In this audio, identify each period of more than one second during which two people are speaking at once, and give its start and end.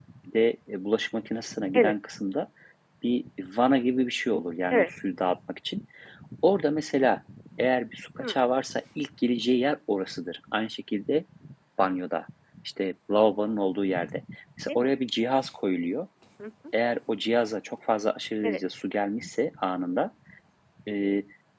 none

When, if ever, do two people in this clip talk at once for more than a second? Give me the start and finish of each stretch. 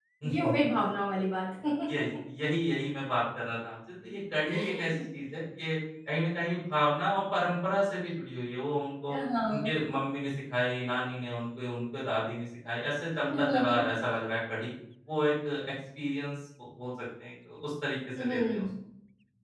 none

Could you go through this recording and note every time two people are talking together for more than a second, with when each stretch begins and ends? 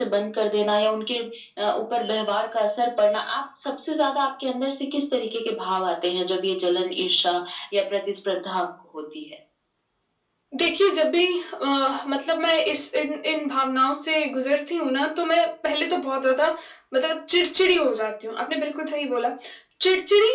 none

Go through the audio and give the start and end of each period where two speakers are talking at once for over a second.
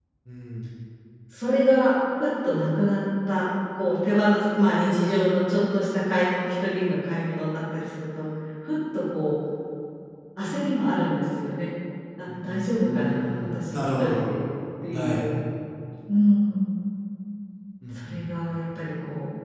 12.4-14.2

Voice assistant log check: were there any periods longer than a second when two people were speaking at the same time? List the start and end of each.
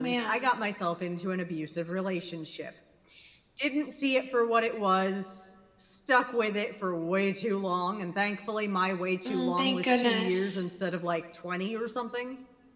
9.2-10.6

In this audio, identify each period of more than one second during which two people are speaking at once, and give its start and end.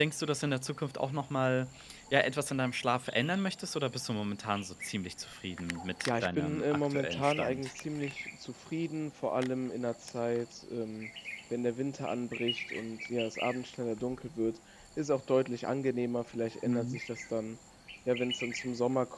6.1-7.7

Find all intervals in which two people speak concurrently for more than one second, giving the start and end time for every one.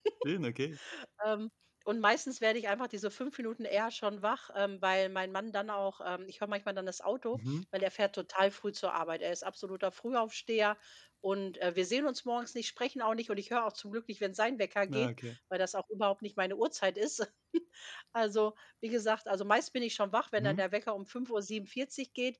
none

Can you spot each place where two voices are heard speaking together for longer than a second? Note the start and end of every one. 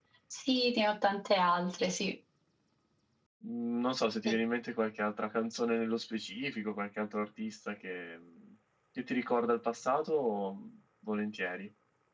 none

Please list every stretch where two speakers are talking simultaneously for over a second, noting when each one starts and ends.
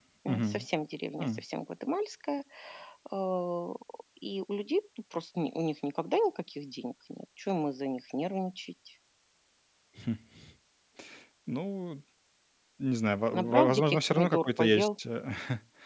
13.3-14.9

